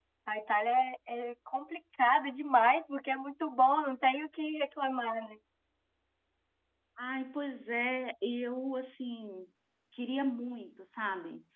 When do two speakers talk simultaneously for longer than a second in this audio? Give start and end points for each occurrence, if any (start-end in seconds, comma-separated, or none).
none